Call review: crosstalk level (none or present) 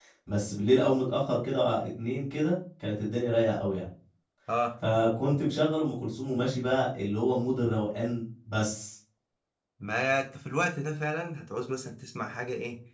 none